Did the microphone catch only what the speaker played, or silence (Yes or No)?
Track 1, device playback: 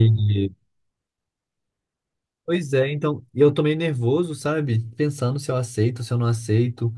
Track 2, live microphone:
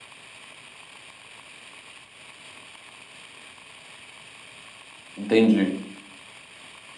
No